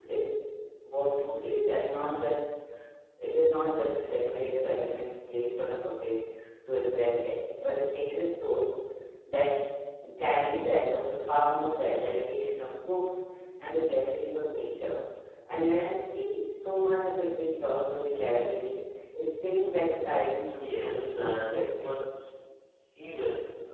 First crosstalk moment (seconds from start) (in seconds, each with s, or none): 20.6 s